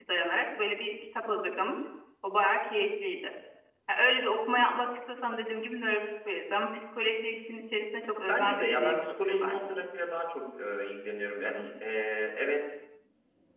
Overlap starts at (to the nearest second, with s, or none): 8 s